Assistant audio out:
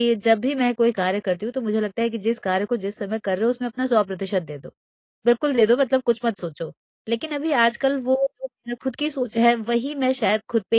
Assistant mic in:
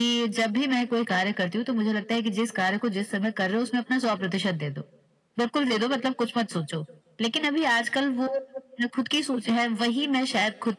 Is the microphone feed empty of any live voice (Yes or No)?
Yes